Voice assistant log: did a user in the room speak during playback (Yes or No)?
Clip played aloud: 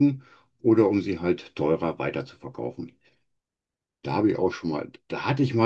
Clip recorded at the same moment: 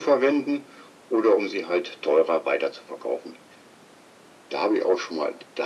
No